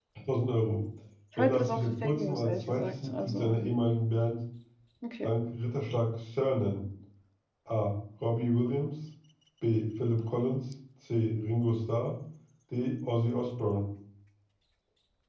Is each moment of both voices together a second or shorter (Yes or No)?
No